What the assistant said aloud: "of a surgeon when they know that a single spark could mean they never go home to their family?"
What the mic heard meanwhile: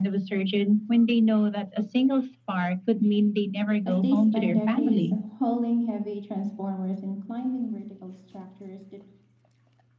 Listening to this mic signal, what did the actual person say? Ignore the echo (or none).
as they spend decades hauling heavy transformers and climbing vertical structures that